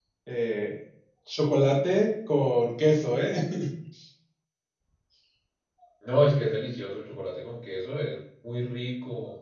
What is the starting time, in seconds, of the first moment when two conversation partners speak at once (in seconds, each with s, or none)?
none